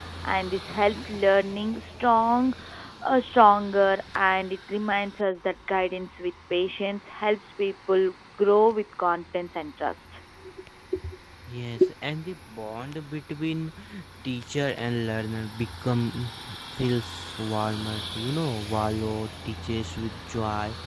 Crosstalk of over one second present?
No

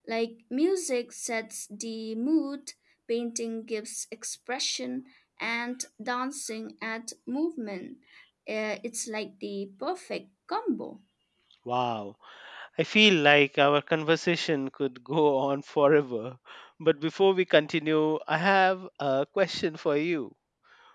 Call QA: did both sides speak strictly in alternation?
Yes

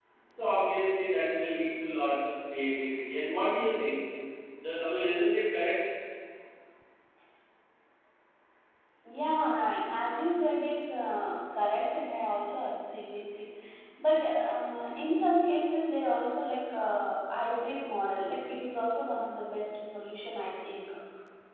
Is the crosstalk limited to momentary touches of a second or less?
Yes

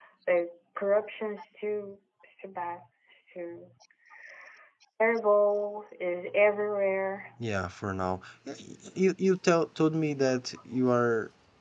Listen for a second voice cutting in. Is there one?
No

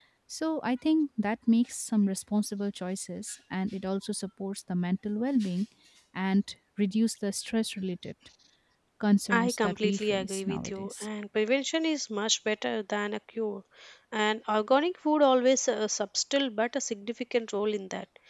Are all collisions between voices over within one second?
No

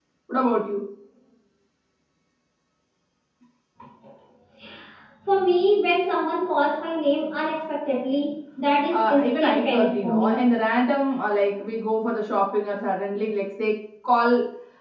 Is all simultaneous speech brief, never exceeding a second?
No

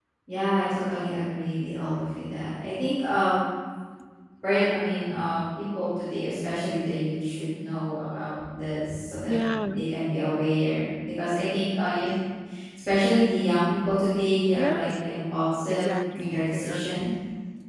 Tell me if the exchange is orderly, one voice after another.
No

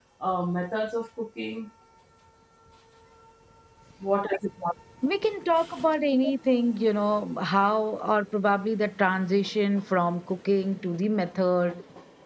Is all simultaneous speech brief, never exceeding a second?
Yes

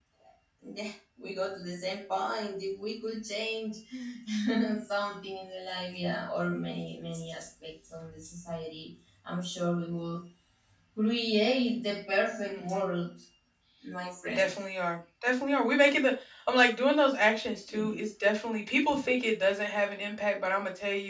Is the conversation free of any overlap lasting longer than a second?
Yes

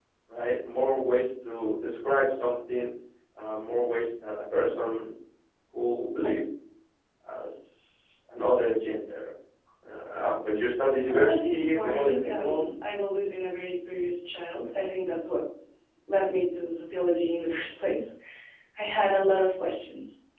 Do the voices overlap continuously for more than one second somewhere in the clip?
Yes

